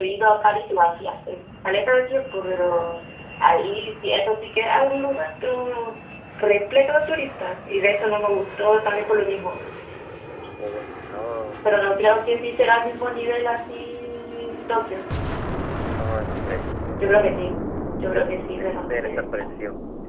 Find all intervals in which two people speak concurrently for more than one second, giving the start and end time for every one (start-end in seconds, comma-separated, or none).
18.0-19.4